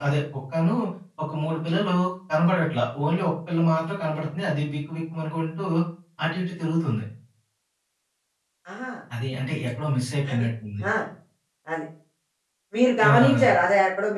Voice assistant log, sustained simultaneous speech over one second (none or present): none